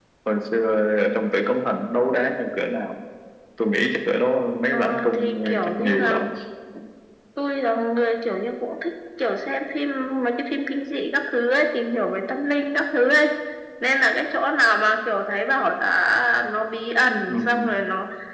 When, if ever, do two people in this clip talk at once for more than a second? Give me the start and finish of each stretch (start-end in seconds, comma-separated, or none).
4.7-6.2